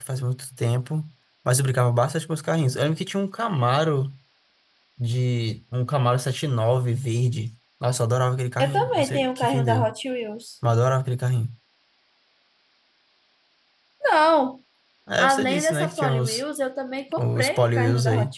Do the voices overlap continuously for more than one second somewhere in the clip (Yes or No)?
Yes